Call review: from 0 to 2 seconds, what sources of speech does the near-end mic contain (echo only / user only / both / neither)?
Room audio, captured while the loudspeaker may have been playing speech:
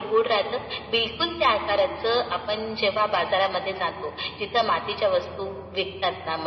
echo only